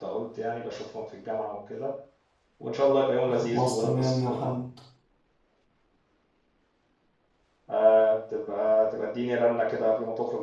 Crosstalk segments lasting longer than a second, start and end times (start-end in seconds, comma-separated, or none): 3.3-4.5